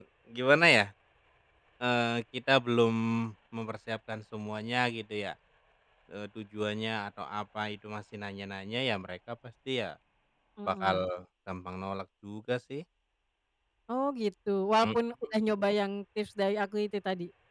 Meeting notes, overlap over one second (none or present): none